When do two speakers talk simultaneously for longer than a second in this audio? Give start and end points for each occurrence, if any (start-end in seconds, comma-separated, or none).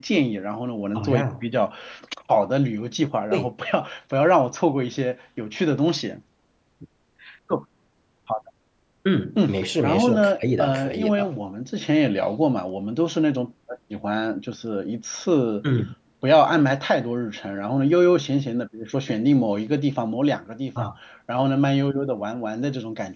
9.4-11.3